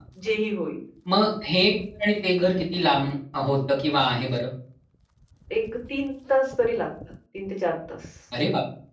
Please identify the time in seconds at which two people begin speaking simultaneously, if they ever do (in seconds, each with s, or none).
none